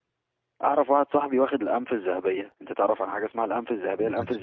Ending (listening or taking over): listening